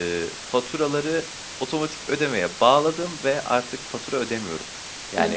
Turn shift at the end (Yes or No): Yes